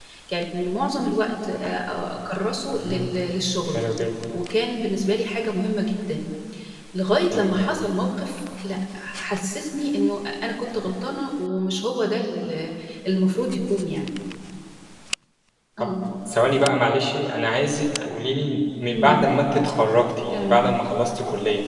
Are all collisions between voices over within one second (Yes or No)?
Yes